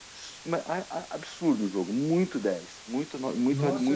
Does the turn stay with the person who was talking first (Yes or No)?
No